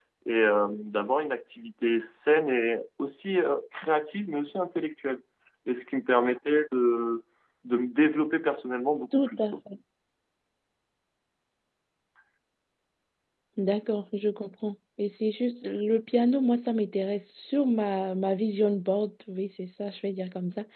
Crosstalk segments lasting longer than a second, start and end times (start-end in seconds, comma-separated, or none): none